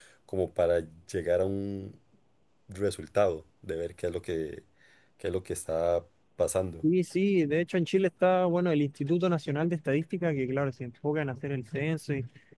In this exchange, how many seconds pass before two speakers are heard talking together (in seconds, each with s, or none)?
none